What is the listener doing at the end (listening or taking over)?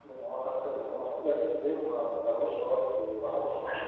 taking over